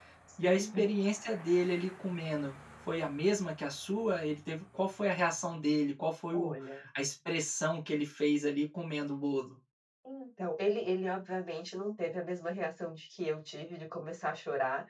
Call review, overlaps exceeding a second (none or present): none